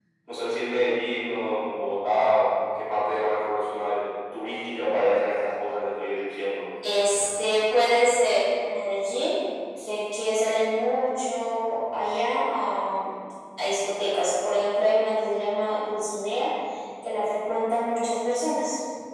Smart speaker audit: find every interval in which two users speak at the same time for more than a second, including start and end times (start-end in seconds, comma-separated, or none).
none